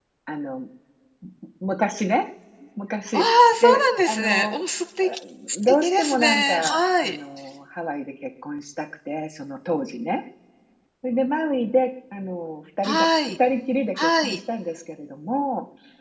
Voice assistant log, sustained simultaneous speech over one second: present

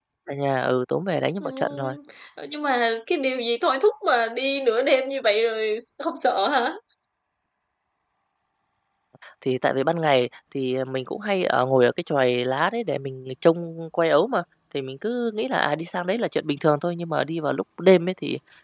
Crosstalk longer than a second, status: none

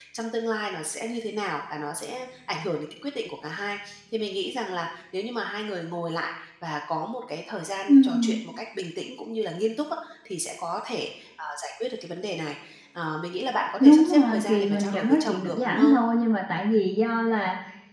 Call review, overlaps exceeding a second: present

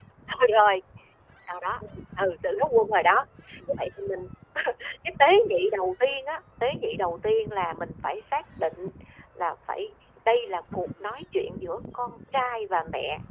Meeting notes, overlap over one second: none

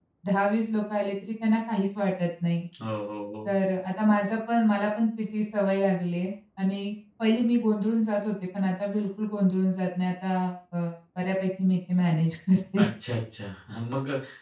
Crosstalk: none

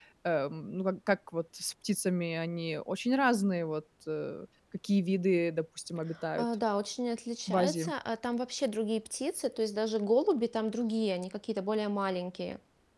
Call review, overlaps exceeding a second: none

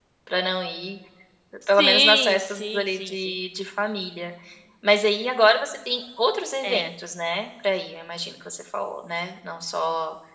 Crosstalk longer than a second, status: present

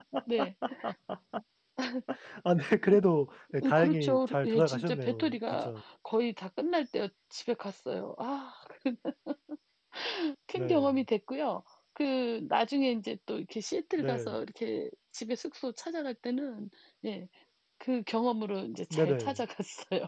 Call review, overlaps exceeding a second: present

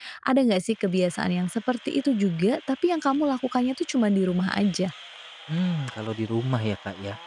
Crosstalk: none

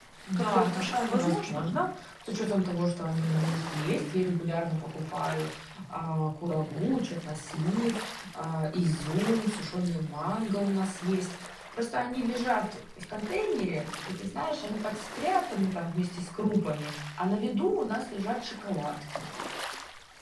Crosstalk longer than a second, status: present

